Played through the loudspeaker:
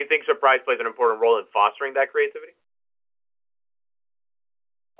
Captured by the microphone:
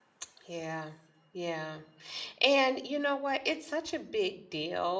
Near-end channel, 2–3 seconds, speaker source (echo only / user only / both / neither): user only